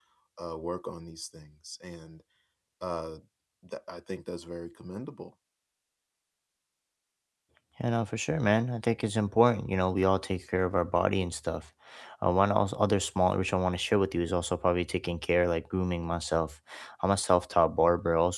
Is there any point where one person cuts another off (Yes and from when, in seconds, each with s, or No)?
No